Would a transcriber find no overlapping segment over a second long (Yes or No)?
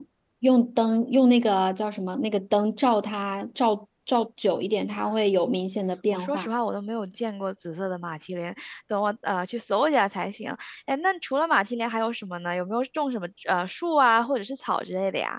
Yes